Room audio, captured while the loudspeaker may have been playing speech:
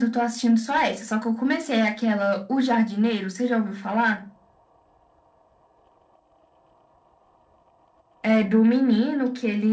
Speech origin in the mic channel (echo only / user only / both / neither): echo only